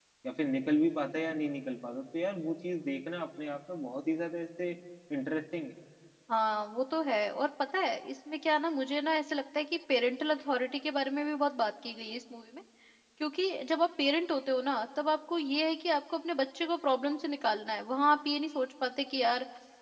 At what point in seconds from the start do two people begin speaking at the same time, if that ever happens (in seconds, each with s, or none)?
none